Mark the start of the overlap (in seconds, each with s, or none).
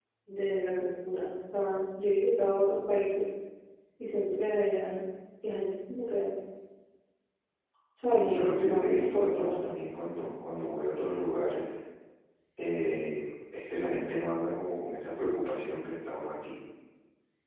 8.0 s